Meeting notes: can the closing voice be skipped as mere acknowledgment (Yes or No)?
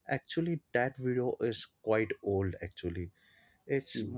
Yes